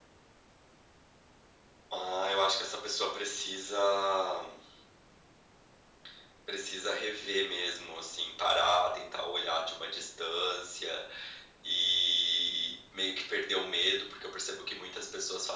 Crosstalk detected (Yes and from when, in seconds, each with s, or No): No